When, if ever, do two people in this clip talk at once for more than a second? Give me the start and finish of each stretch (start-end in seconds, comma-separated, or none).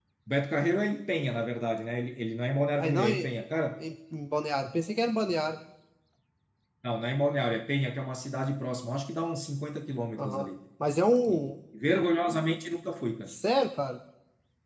none